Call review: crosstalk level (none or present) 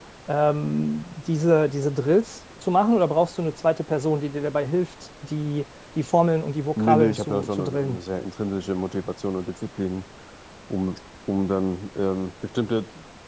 present